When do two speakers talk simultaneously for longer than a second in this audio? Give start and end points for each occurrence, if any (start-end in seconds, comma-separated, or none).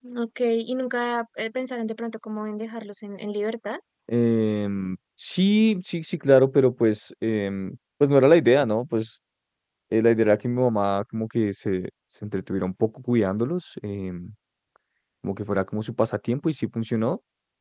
none